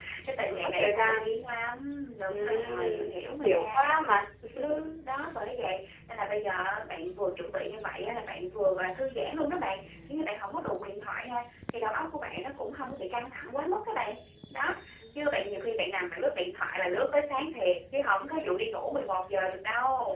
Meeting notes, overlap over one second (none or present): present